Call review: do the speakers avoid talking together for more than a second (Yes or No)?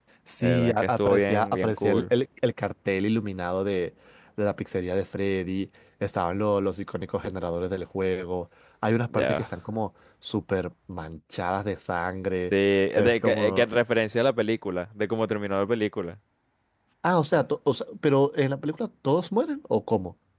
No